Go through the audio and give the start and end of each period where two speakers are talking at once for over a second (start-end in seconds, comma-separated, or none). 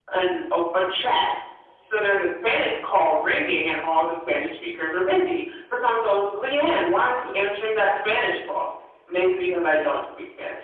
none